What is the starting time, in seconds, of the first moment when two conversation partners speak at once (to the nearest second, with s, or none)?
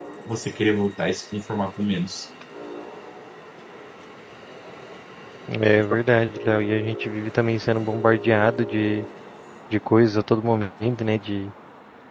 none